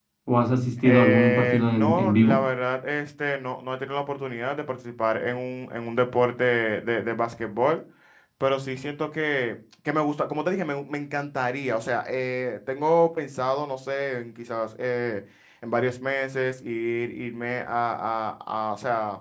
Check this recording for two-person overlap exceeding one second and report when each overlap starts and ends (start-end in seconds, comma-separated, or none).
0.8-2.4